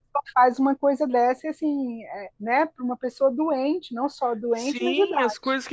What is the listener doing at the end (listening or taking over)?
taking over